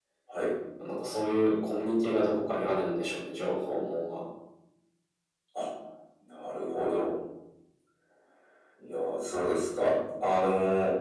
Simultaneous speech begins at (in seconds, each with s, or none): none